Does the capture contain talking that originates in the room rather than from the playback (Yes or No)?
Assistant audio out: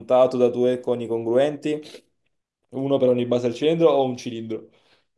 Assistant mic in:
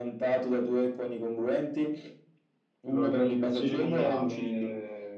Yes